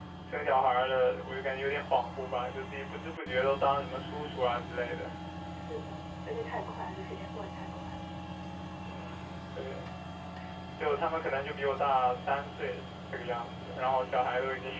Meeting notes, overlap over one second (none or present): none